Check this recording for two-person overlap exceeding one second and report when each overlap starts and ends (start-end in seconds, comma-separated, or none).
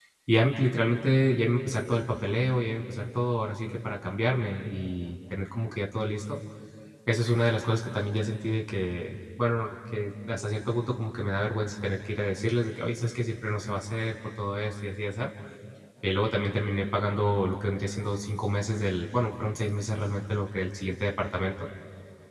none